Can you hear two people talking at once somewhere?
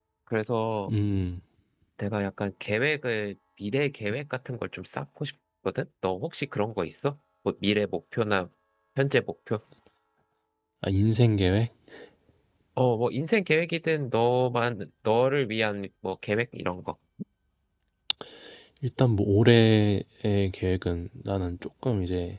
No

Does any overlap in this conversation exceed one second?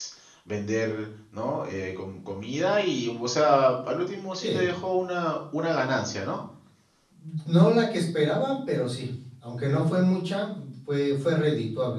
No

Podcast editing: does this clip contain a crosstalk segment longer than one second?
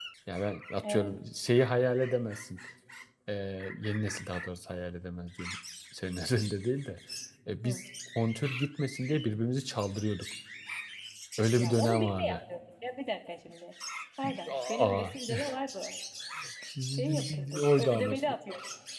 Yes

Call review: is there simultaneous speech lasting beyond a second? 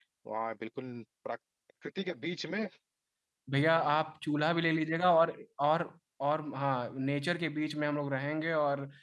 No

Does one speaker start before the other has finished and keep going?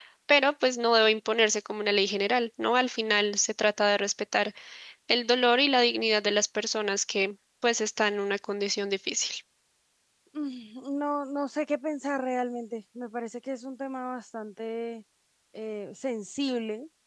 No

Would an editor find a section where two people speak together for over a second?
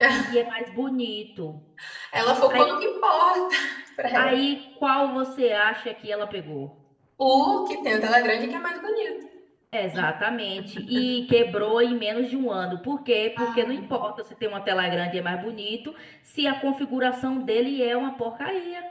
No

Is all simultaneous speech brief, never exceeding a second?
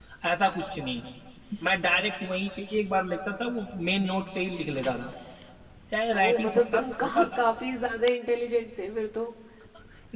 No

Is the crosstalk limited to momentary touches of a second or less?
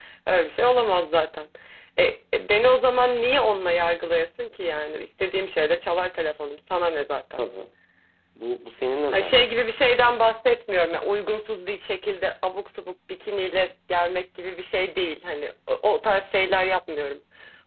Yes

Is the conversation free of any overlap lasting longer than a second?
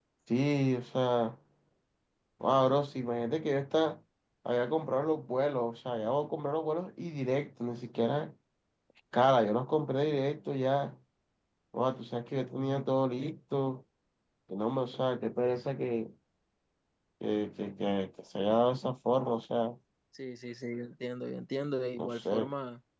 Yes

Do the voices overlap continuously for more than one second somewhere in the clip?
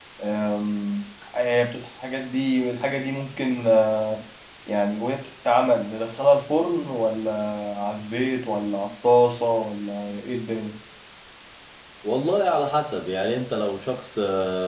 No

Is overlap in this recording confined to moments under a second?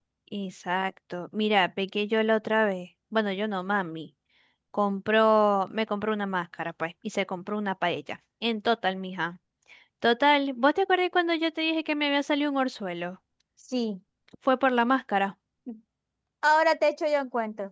Yes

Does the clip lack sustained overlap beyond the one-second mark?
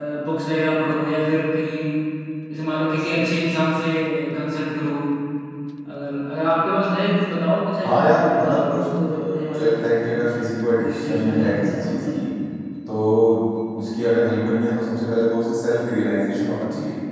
No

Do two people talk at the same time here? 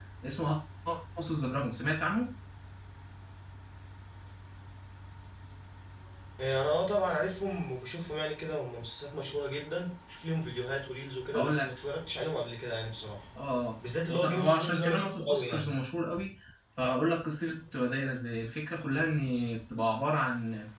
Yes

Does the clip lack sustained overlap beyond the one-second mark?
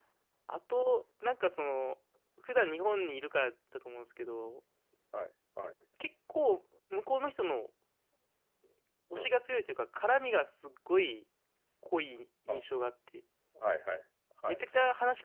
Yes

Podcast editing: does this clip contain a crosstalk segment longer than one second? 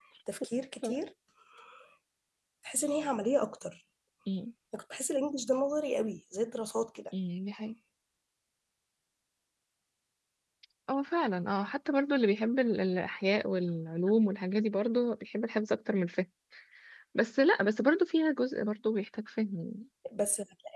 No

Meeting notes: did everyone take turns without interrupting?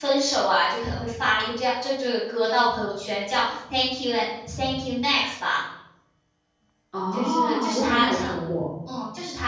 No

